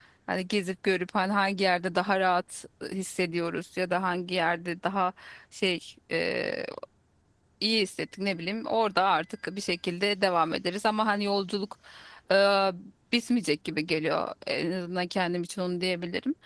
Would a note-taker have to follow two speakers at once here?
No

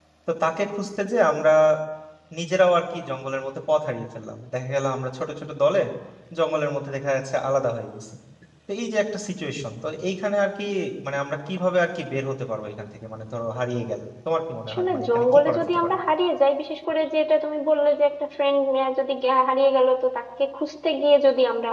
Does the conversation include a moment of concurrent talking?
Yes, from 14.7 s

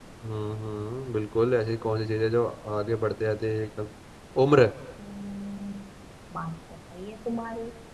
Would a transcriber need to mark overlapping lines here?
No

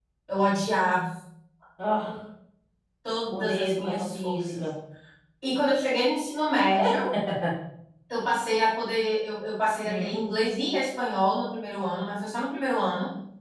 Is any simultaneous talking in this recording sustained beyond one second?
Yes, from 3.3 s

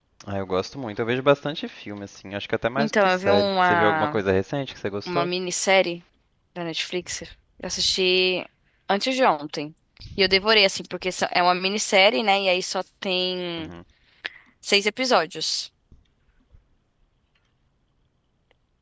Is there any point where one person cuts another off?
Yes, from 2.8 s

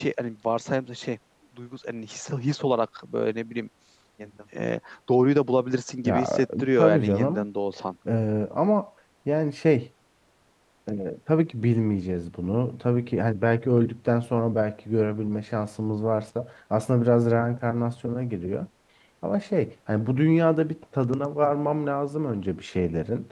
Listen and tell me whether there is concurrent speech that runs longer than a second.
Yes, from 6.1 s

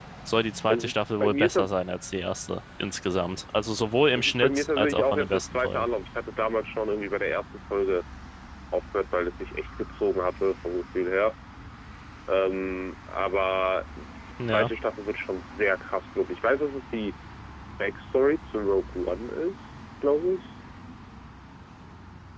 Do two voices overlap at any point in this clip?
Yes, from 0.7 s

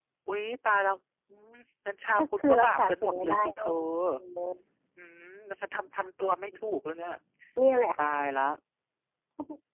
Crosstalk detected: Yes, from 2.2 s

